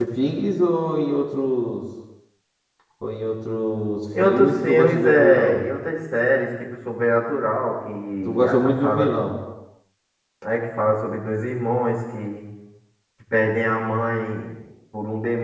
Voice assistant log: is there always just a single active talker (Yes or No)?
No